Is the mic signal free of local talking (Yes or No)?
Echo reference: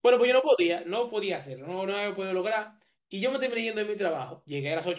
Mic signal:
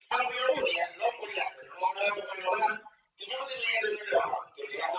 Yes